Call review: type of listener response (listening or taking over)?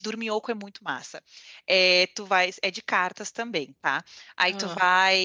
listening